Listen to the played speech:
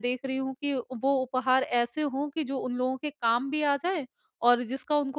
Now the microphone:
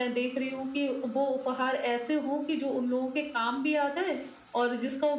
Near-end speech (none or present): none